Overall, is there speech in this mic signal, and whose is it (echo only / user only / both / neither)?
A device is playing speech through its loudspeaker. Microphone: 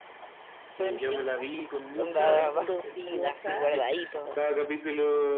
both